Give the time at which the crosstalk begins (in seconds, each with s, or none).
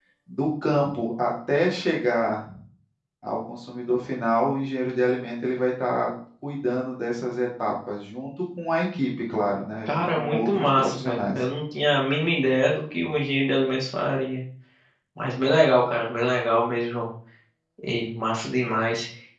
9.9 s